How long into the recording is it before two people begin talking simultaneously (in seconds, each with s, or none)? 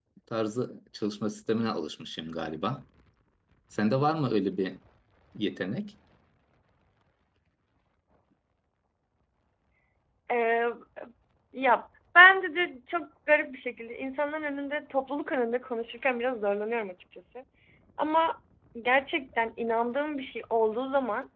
none